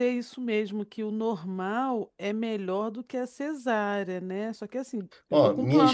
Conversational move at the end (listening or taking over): taking over